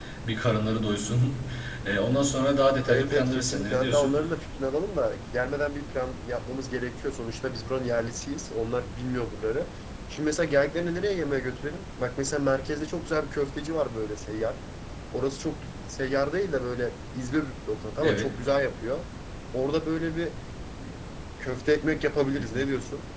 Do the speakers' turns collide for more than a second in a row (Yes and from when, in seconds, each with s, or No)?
Yes, from 2.9 s